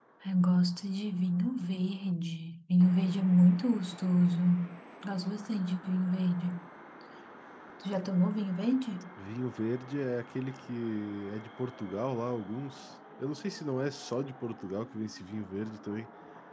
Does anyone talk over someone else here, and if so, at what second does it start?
none

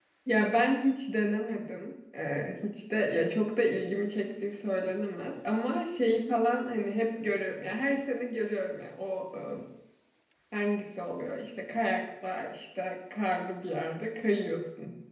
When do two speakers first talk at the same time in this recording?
none

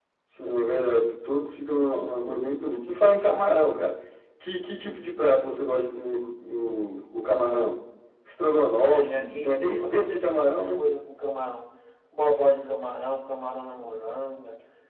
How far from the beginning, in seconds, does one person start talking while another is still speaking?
9 s

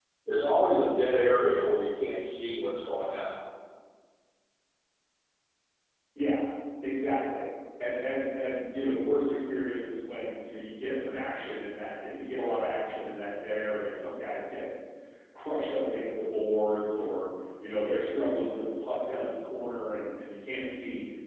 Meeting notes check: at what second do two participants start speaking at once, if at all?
none

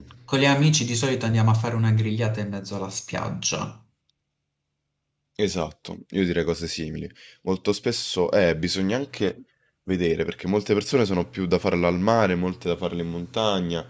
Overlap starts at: none

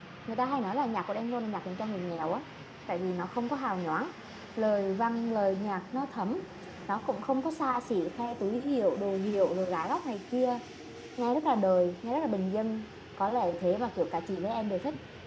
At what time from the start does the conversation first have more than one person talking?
none

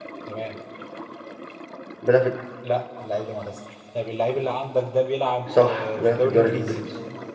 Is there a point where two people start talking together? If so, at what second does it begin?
5 s

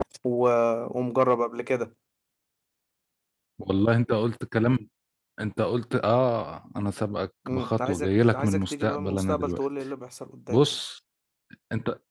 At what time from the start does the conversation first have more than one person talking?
7 s

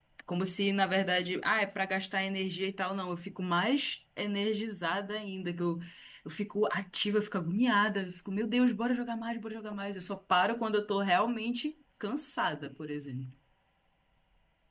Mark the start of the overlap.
none

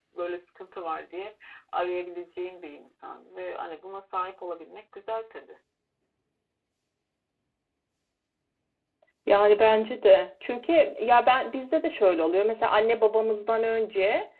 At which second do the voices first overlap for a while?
none

